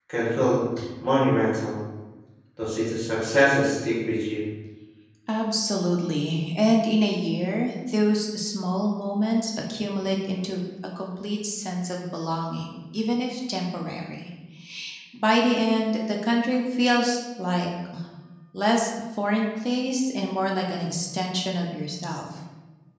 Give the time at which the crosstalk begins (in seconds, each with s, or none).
none